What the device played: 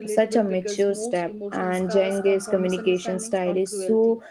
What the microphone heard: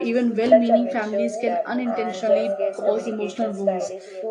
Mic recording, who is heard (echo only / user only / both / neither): both